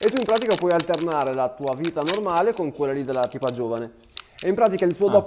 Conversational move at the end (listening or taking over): listening